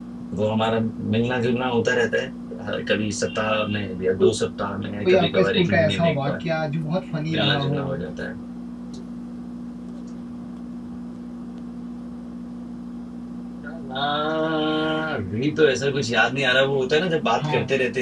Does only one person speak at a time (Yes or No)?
No